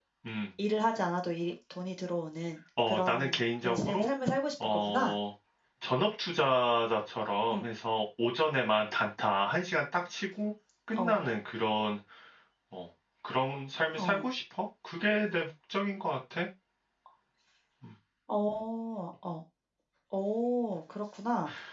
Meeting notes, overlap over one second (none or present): present